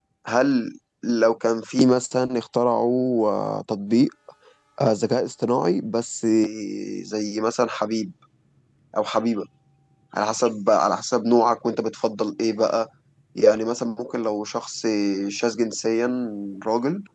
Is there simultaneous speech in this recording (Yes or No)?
No